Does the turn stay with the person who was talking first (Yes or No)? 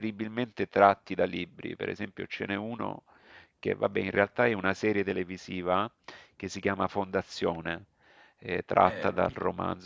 Yes